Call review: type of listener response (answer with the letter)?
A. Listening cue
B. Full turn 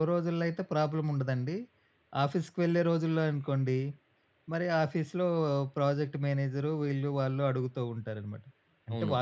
A